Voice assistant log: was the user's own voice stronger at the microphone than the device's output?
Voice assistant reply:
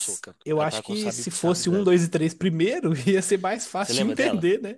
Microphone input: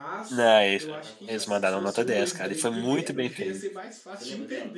Yes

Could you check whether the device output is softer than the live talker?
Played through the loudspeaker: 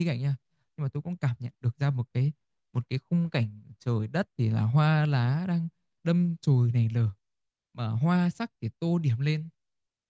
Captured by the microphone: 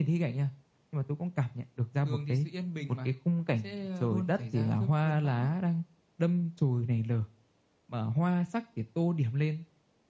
No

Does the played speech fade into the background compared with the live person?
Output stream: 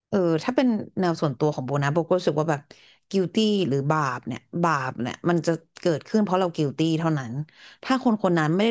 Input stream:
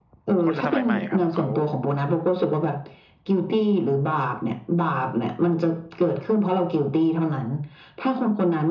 No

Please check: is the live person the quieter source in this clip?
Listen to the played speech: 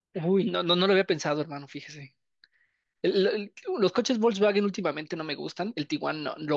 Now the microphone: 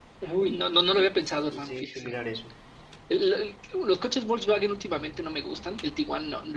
Yes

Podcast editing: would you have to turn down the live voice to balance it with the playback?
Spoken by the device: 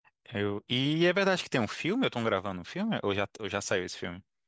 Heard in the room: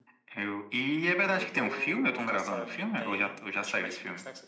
No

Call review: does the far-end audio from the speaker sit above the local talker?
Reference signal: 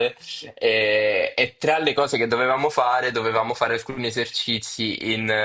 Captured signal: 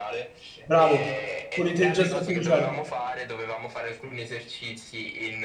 No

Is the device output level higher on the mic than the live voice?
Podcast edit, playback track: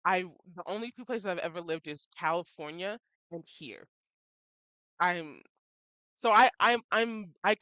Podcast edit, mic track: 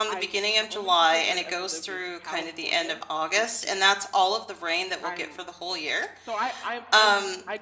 No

